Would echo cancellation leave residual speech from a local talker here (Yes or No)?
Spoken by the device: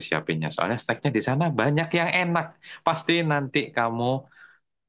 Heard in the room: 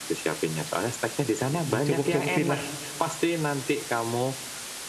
Yes